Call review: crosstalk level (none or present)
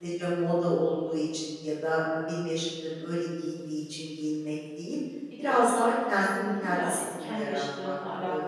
present